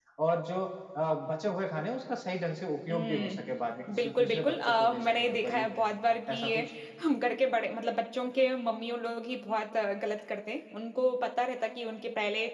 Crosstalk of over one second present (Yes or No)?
Yes